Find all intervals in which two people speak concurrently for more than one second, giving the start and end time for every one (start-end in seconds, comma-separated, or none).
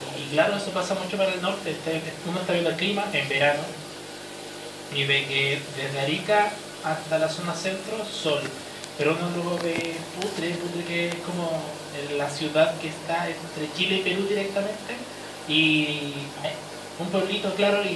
none